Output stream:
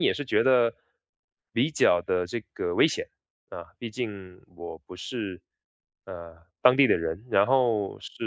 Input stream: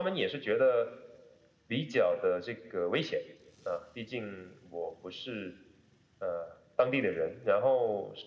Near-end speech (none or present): none